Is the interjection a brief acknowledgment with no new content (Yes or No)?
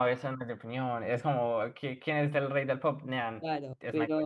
No